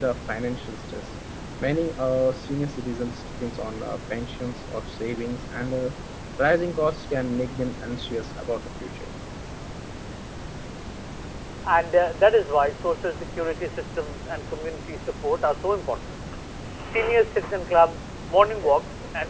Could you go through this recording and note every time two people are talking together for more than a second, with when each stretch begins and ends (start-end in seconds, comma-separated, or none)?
none